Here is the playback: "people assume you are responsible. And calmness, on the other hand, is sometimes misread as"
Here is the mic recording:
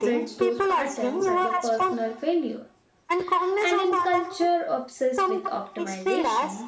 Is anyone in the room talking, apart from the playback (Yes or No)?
Yes